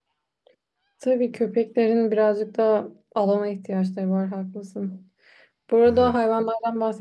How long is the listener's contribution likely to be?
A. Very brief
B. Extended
A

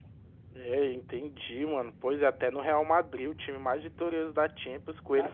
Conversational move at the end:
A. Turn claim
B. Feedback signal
A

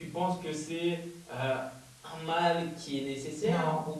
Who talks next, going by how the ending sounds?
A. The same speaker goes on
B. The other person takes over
A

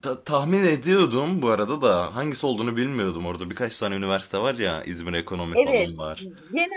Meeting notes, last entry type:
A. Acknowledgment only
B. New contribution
B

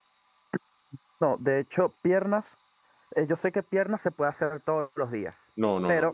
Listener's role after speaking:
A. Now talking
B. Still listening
A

